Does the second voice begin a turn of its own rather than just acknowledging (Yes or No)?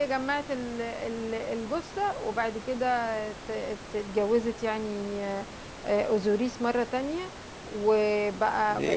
Yes